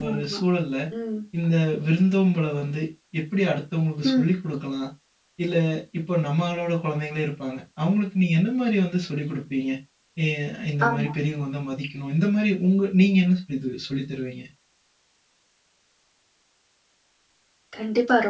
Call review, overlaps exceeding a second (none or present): none